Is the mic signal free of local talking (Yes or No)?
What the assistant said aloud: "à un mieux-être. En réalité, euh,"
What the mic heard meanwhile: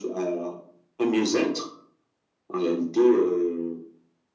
Yes